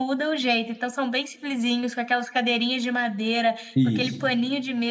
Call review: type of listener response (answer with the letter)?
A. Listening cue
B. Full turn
A